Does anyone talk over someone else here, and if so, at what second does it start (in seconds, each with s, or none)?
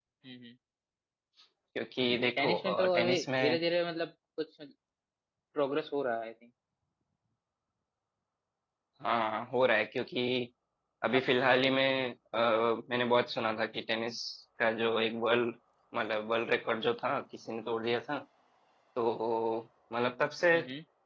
2.4 s